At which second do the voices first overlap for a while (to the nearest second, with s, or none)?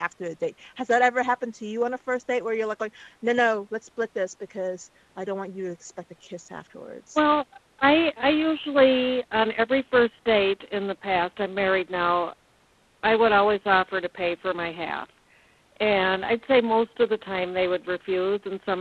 none